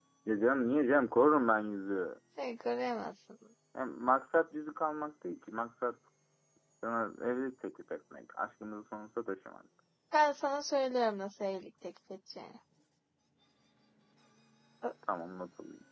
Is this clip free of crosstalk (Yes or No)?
Yes